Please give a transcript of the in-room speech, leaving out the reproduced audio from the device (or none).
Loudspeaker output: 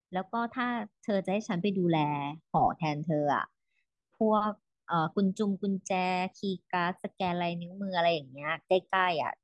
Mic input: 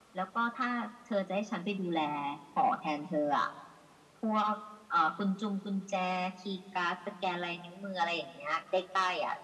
none